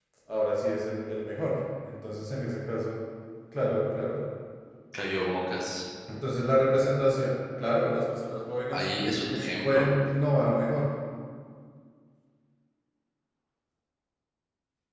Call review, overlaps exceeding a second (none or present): none